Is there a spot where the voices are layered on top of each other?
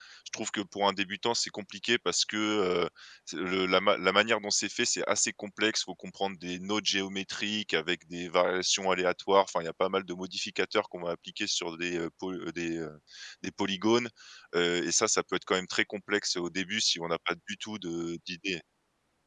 No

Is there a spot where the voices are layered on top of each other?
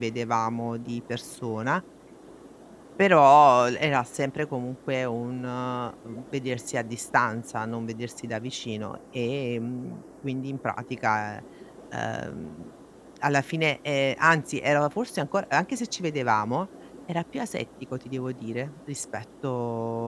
No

